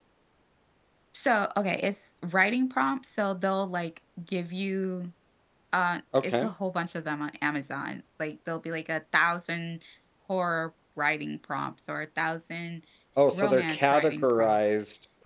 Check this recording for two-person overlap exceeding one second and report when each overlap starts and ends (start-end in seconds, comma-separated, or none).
13.3-14.6